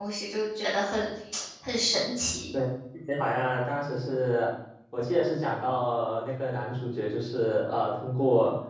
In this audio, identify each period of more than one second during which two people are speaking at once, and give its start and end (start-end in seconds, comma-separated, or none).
none